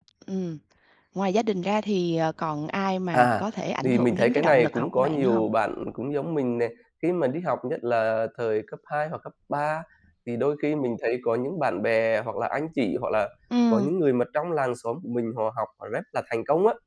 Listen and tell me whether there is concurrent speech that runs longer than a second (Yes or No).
Yes